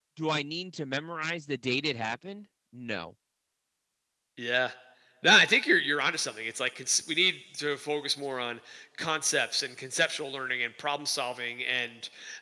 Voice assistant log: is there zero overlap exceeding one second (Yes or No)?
Yes